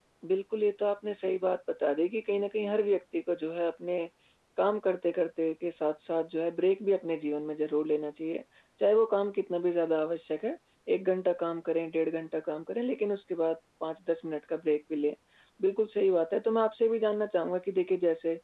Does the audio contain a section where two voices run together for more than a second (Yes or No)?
No